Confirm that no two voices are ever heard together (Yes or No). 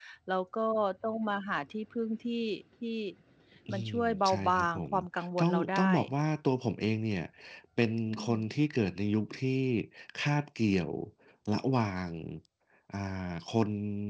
No